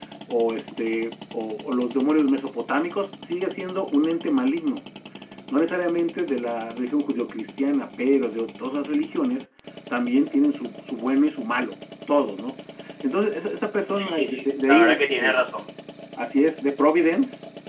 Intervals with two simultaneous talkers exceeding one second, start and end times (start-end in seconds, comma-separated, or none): 13.9-15.4